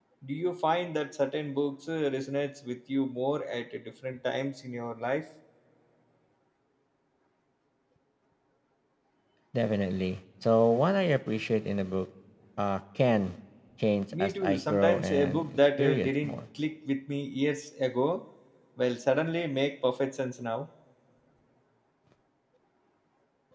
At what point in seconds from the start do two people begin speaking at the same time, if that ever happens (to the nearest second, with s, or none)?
14 s